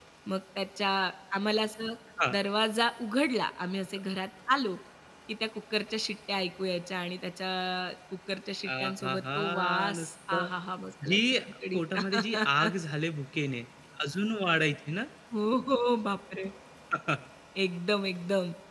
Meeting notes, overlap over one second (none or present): present